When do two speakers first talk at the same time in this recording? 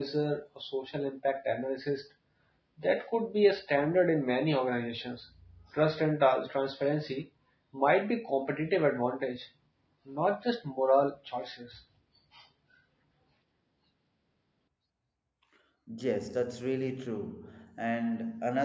none

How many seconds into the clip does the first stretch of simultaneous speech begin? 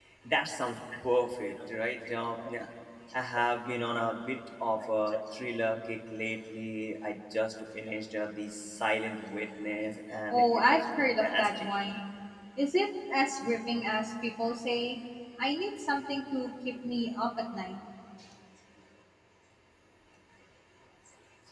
10 s

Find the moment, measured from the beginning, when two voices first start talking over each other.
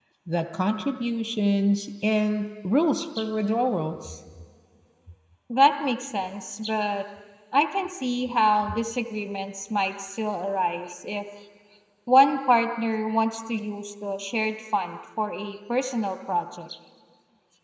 none

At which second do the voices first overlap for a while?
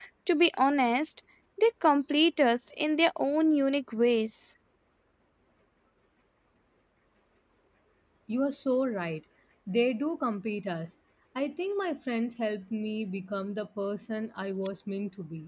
none

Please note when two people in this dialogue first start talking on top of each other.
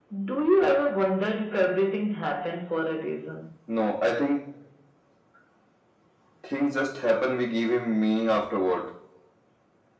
none

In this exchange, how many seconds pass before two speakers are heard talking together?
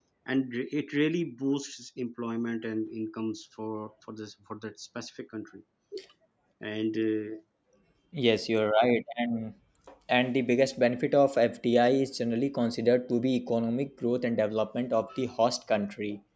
none

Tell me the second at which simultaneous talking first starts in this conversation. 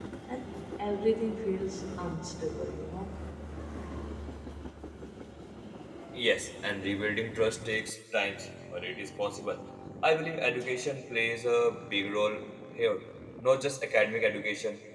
none

